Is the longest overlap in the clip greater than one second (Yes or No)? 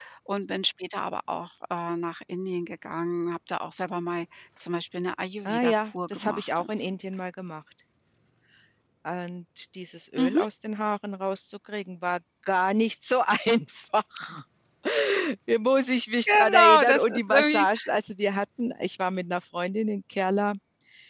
Yes